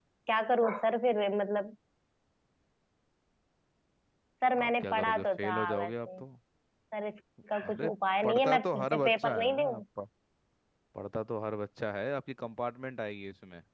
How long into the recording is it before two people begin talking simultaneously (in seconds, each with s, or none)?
4.6 s